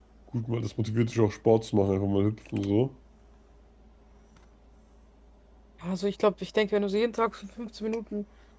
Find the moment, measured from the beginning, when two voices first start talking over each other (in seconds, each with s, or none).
none